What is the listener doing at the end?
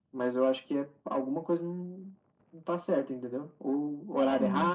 listening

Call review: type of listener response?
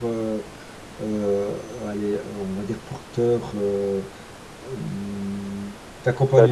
listening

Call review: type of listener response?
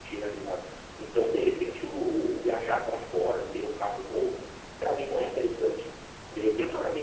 listening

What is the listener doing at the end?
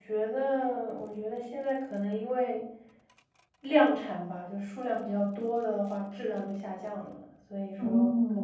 taking over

